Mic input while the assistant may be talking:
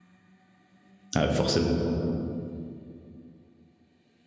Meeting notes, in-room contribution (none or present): present